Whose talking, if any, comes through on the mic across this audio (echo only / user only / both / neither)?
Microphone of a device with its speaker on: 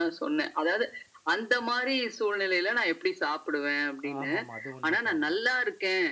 both